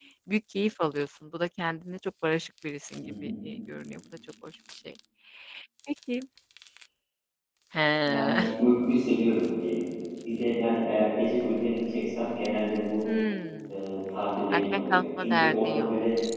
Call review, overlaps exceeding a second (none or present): present